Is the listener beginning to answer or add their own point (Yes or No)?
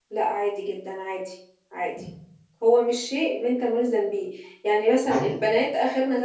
No